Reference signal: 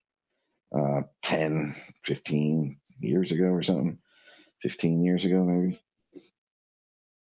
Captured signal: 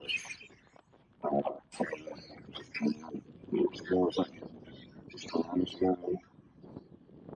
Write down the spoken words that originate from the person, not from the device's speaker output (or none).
none